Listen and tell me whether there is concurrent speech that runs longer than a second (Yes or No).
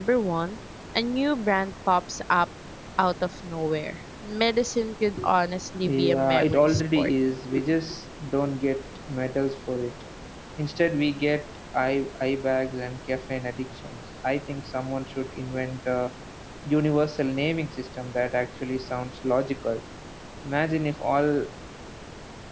Yes